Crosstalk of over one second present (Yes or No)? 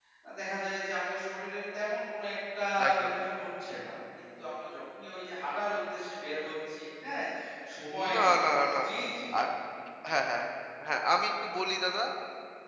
No